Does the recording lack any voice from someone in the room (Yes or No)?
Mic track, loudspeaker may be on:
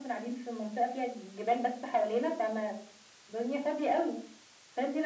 Yes